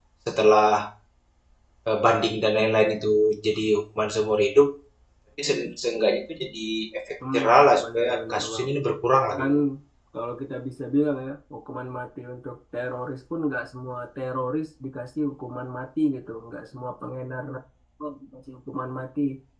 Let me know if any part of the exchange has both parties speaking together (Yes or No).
Yes